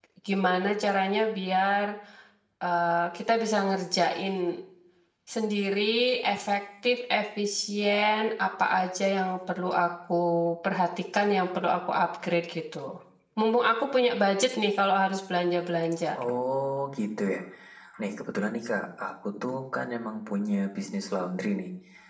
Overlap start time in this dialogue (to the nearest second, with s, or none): none